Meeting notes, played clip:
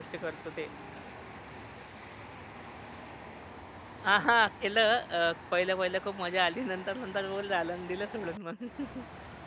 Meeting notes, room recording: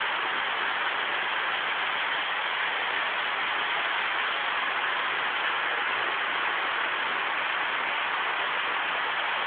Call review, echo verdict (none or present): none